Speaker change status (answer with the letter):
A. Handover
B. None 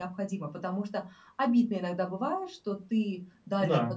B